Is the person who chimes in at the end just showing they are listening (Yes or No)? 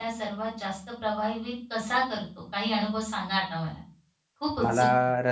No